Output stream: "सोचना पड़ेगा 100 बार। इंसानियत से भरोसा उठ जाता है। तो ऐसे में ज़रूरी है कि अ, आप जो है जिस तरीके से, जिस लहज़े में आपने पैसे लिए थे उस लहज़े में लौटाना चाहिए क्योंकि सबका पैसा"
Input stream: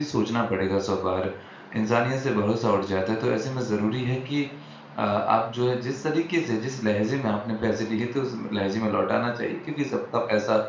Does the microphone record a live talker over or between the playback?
No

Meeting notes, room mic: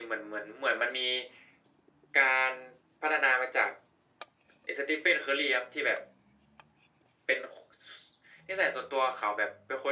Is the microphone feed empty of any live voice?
Yes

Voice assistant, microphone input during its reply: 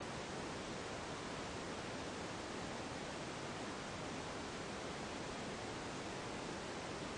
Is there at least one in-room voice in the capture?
No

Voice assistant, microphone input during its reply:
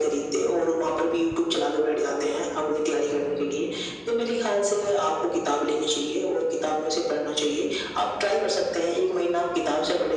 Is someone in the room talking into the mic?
No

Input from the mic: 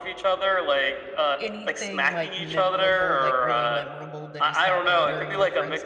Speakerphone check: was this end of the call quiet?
No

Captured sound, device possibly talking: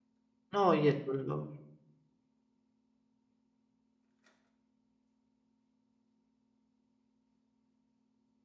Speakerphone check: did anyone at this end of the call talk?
Yes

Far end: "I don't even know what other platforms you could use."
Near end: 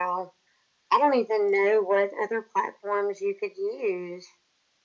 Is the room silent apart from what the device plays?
Yes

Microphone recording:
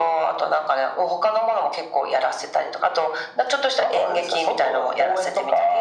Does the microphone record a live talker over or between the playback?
No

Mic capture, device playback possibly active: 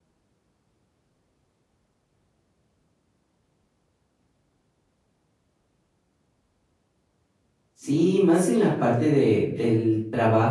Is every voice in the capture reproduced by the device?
No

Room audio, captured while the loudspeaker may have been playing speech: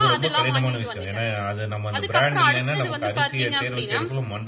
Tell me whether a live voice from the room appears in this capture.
Yes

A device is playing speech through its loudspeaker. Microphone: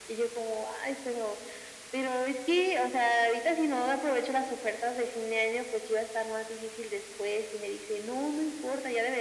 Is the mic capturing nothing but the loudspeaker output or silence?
Yes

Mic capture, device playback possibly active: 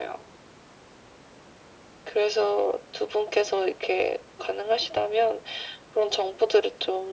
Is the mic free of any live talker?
Yes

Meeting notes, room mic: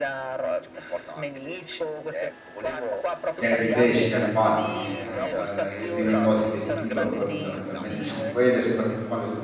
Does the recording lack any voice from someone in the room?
No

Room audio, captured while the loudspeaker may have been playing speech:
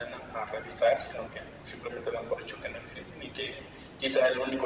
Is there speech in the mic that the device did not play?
No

